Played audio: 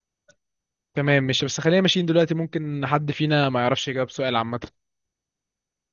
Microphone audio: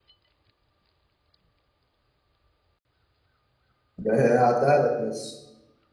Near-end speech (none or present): present